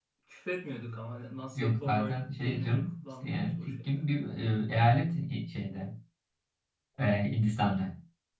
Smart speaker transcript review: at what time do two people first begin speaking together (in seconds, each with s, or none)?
1.6 s